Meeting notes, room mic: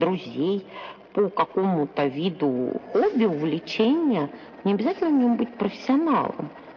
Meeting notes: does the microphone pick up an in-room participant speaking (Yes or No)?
No